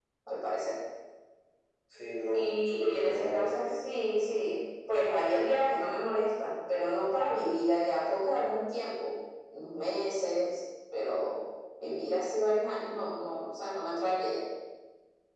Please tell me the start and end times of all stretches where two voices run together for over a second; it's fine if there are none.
2.3-3.7

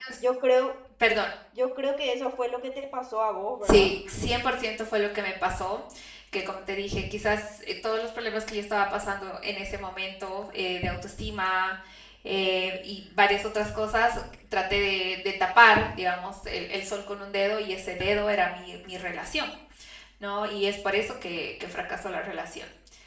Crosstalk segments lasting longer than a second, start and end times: none

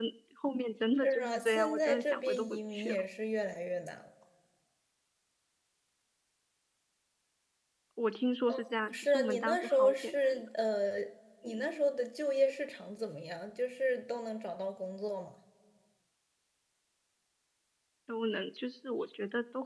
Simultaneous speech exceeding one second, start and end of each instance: 1.0-3.0, 8.9-10.4

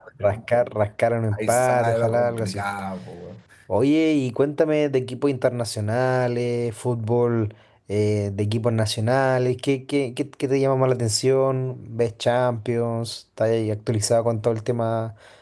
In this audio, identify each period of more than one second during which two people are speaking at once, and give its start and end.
1.3-2.6

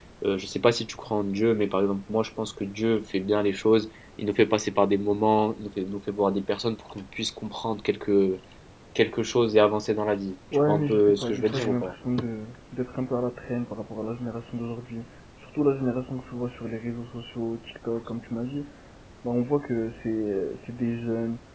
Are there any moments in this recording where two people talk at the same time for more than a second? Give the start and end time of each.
10.7-11.9

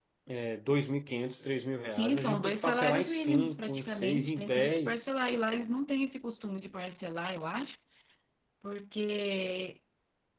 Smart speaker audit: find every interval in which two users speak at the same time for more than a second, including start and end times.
1.9-5.1

